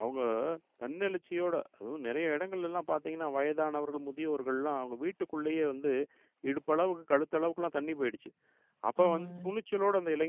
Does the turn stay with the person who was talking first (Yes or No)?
Yes